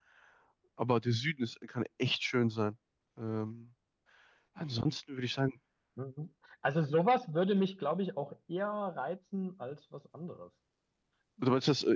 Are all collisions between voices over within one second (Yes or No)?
Yes